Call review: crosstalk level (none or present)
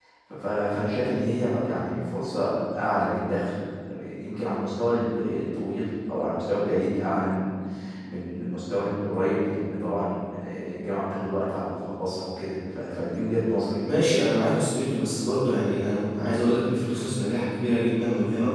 none